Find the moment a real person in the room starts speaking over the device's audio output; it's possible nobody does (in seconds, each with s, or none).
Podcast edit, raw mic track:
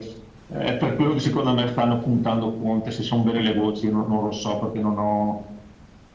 none